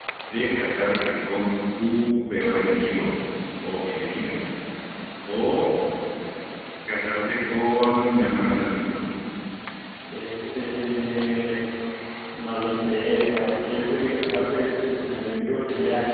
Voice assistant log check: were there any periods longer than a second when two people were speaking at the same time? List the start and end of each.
none

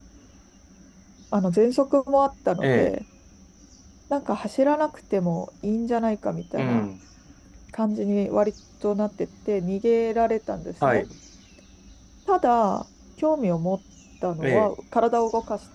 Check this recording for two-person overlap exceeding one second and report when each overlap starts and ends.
none

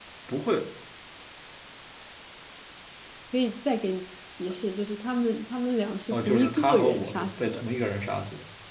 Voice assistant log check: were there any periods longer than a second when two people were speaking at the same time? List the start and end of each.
6.1-7.6

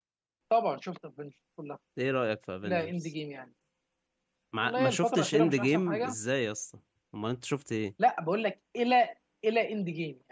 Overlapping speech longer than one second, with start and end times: 4.6-6.1

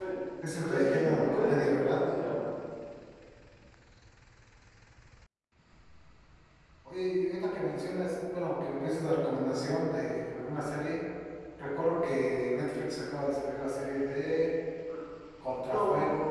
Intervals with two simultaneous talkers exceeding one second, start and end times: 0.6-2.0

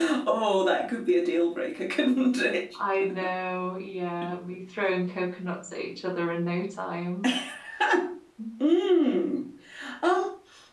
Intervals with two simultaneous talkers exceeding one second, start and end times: none

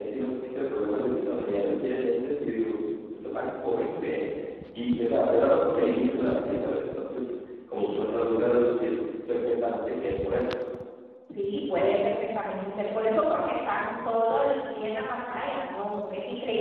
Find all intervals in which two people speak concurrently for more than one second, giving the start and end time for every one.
none

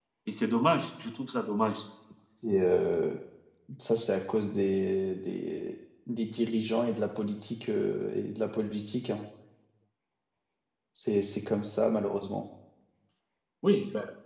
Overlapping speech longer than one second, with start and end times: none

